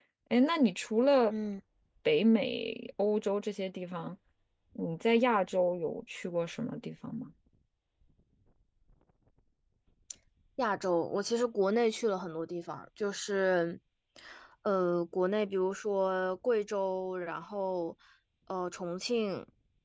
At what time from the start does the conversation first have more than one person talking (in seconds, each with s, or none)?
none